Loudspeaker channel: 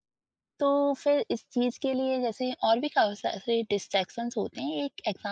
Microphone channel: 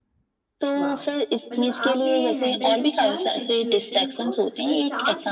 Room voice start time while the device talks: 0.8 s

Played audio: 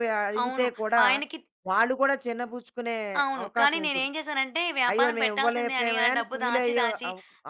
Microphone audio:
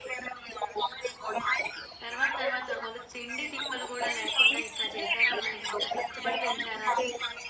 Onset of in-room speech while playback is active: 2.0 s

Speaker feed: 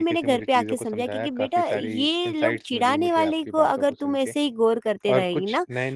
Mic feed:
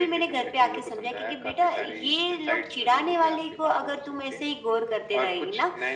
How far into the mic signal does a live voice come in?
none

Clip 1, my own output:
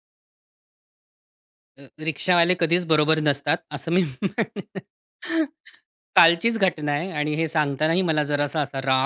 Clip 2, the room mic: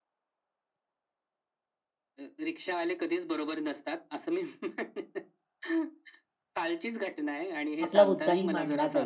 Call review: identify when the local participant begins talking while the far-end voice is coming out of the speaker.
7.8 s

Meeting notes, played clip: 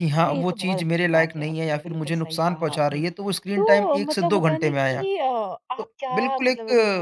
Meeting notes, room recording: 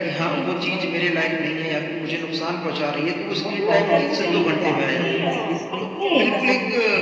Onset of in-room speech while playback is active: 3.5 s

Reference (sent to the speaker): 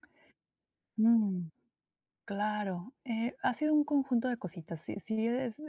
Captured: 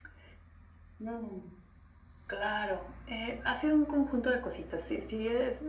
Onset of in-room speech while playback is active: none

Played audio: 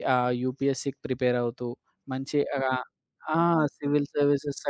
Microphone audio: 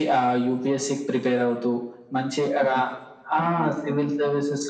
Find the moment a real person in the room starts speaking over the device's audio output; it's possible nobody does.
none

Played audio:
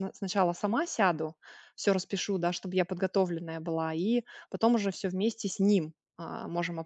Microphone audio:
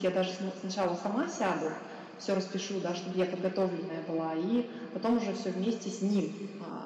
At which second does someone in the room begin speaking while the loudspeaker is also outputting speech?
none

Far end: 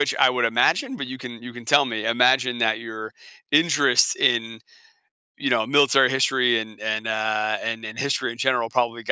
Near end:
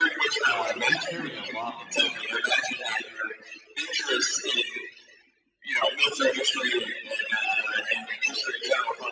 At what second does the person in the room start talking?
0.4 s

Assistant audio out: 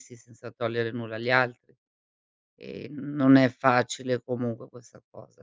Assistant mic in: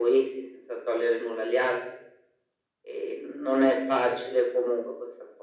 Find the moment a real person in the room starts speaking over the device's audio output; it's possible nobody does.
none

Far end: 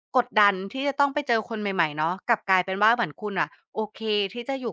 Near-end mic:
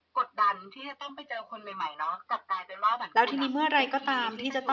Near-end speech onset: 3.1 s

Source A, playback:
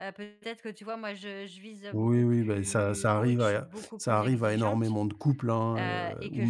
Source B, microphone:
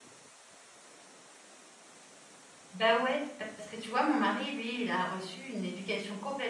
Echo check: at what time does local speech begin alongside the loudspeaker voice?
2.7 s

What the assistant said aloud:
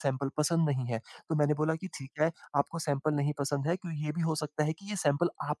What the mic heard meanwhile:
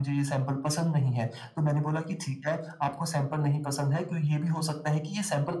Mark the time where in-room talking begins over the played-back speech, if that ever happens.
none

